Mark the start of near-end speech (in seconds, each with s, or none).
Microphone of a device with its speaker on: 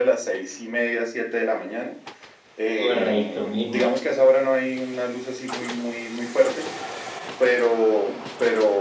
2.8 s